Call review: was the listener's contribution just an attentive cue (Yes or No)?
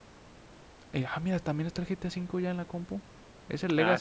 Yes